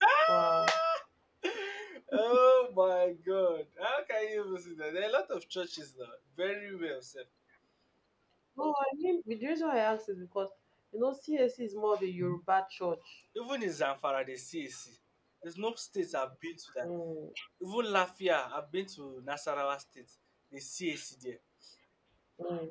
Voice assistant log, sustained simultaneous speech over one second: none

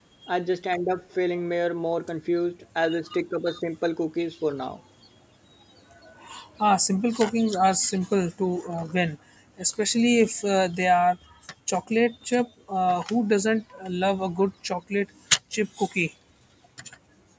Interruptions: none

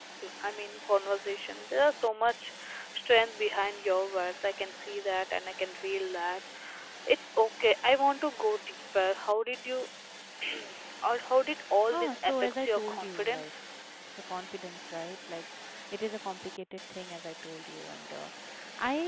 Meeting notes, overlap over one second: present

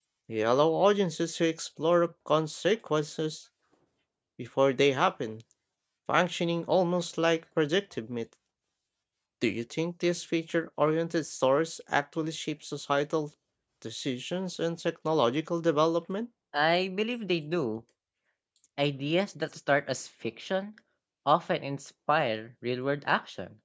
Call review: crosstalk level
none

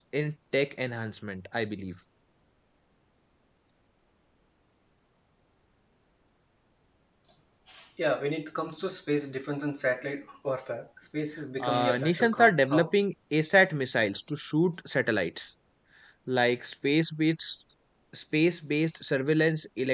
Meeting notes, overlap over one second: present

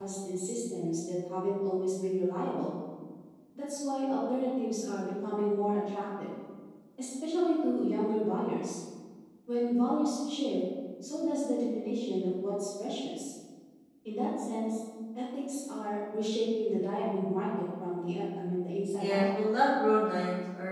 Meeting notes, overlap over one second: none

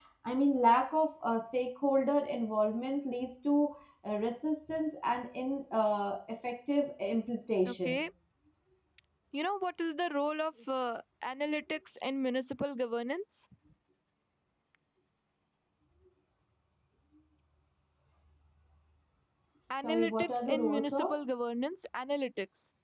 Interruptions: present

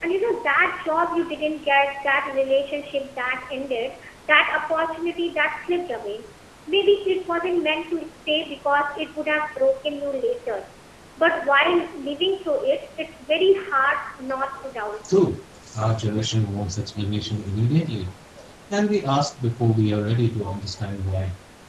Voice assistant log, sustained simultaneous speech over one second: none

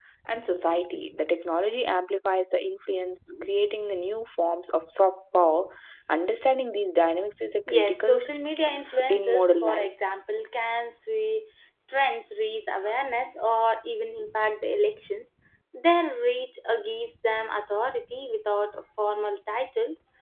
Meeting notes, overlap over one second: present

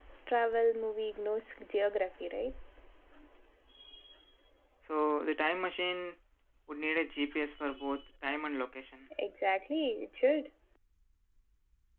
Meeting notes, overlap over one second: none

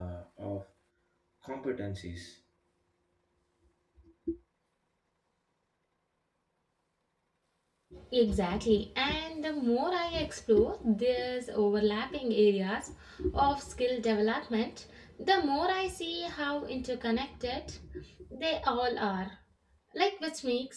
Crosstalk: none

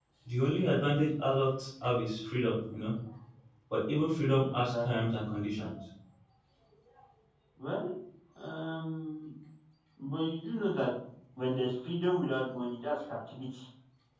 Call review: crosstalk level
present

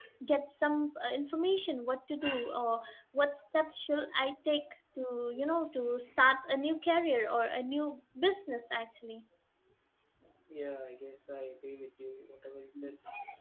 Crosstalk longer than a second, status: none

